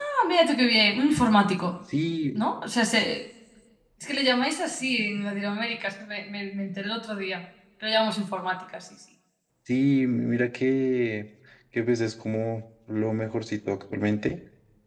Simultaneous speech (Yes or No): No